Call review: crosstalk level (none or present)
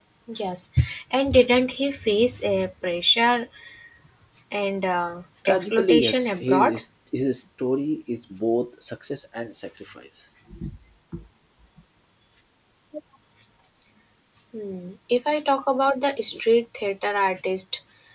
present